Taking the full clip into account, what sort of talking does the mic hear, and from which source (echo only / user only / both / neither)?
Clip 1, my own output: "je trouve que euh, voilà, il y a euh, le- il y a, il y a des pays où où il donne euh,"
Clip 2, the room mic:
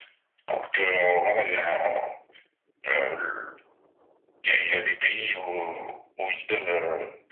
echo only